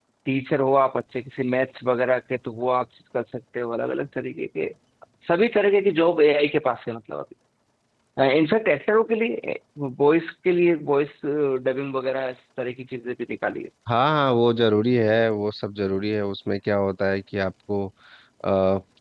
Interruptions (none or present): none